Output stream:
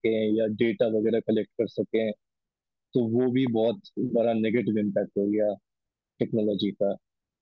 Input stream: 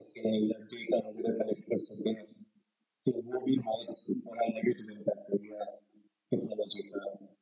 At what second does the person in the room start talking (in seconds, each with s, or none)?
none